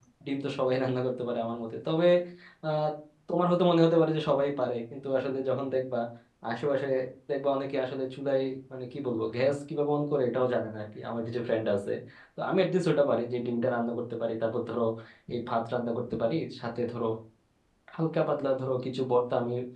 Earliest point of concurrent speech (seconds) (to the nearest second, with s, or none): none